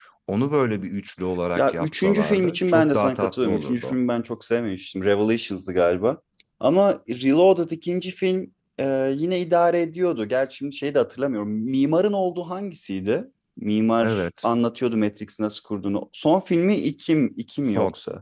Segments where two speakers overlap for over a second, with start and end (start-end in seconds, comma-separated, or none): 1.6-4.0